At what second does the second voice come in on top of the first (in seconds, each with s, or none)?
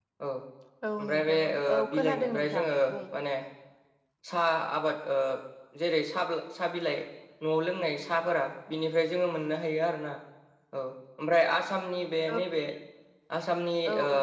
1.0 s